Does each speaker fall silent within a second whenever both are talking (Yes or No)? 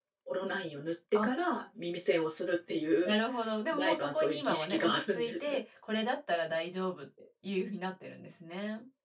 No